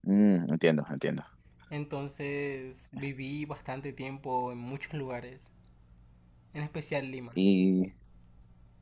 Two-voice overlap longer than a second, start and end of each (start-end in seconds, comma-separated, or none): none